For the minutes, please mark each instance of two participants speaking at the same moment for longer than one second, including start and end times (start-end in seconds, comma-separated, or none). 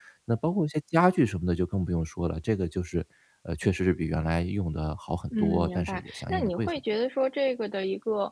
5.3-6.8